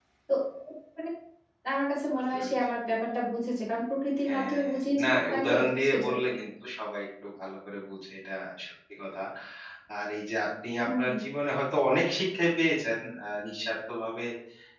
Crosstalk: present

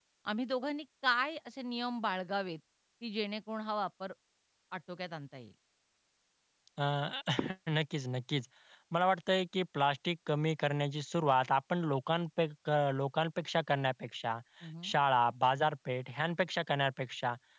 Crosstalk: none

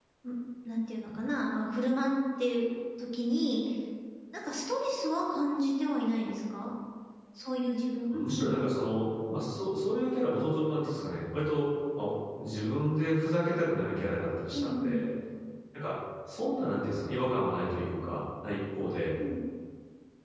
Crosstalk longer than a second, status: none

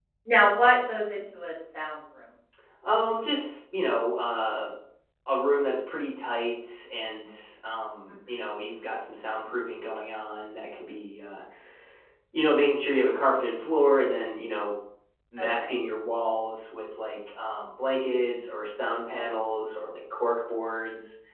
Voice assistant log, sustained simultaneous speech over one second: none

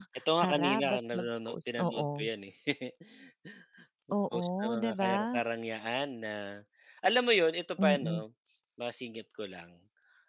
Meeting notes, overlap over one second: present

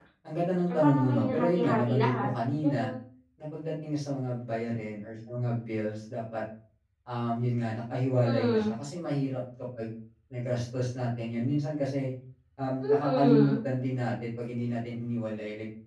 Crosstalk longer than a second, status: present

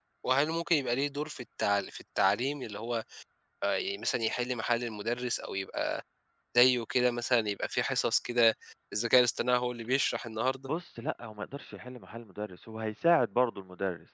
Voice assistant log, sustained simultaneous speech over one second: none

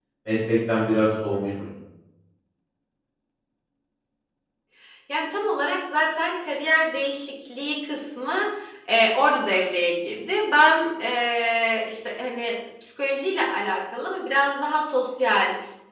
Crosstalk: none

